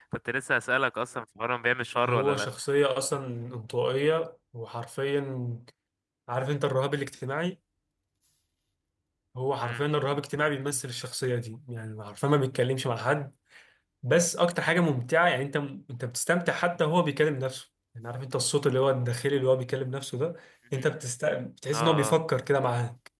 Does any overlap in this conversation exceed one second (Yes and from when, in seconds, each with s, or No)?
No